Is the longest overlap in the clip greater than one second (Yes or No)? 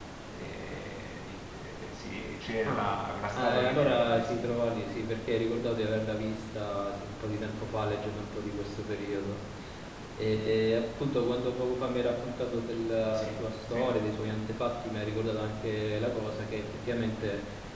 Yes